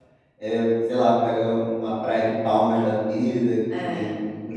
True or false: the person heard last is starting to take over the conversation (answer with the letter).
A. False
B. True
A